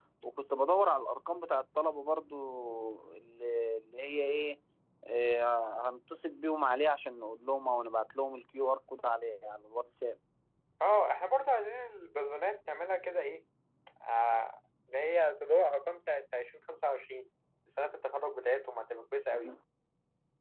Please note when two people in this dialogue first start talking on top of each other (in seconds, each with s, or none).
none